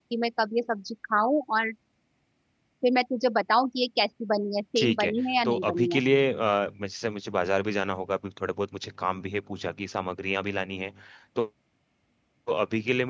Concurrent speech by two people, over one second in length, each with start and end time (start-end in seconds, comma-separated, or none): 4.8-6.0